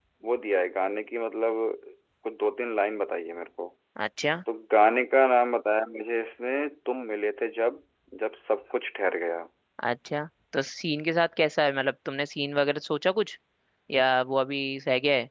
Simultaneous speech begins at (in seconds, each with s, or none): none